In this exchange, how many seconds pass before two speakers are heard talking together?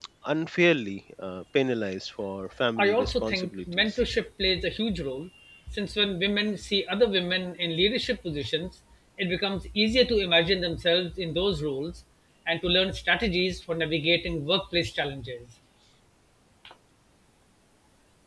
2.8 s

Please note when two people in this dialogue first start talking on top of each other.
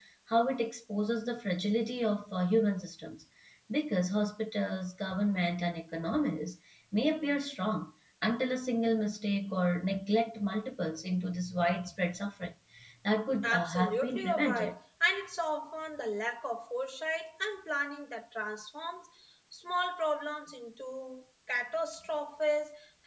13.4 s

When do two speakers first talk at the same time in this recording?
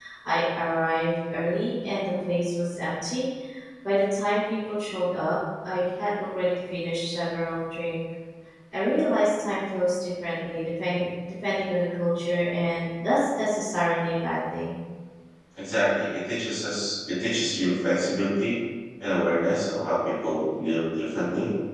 none

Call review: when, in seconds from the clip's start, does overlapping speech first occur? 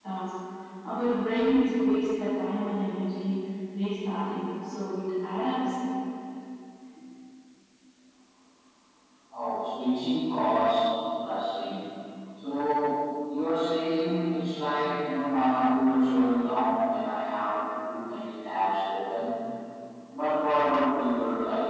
none

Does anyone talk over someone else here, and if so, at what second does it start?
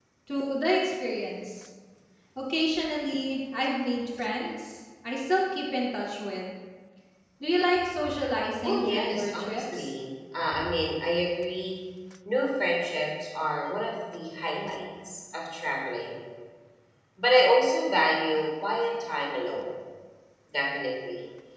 8.6 s

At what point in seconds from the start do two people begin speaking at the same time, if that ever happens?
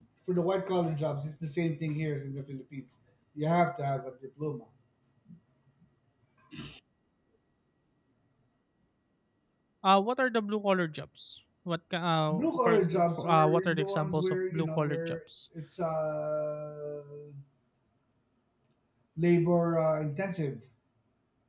12.3 s

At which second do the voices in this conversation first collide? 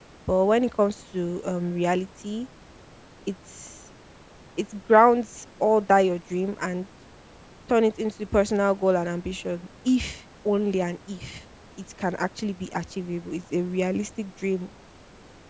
none

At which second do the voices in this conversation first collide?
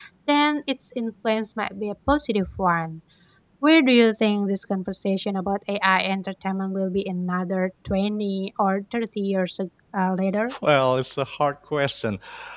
none

